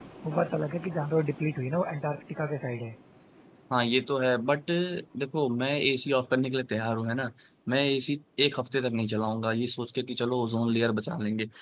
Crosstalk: none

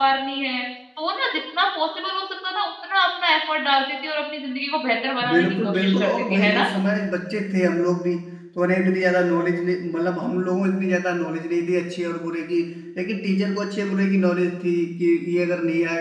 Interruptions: present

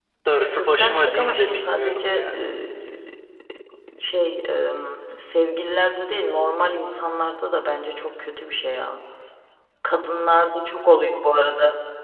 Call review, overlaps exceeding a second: present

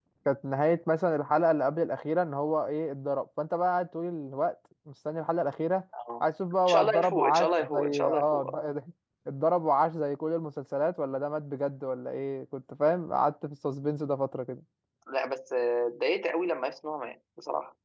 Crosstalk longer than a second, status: present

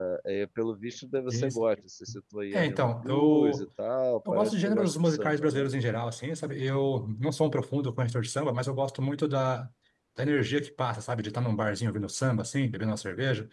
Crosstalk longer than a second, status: present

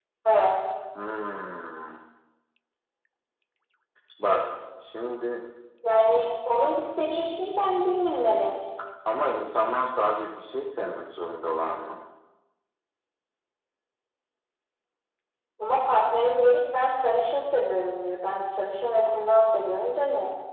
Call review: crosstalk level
none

